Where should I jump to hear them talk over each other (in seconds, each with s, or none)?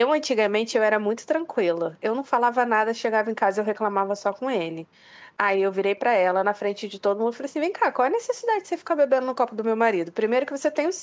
none